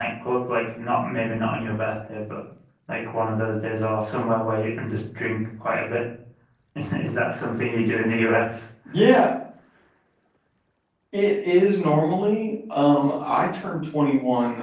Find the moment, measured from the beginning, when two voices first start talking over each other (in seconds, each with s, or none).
none